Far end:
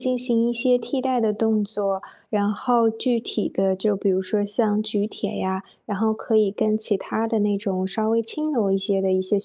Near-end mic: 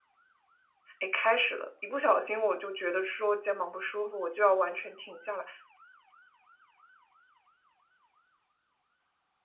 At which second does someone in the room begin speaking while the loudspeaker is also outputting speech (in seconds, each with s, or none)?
1.0 s